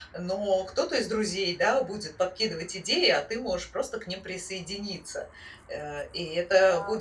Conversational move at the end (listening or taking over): listening